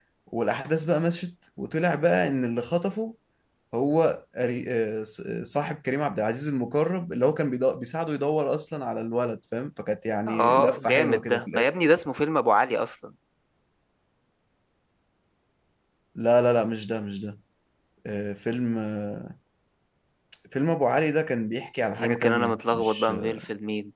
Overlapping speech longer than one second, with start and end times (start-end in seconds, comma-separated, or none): 10.3-11.7, 22.0-23.4